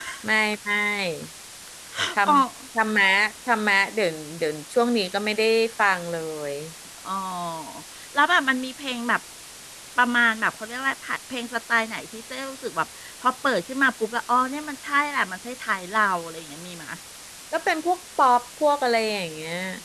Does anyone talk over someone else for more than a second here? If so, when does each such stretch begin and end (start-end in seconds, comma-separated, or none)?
none